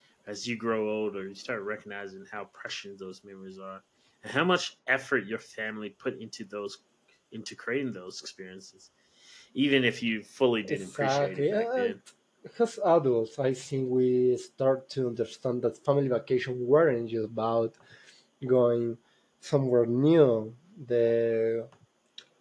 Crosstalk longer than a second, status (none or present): present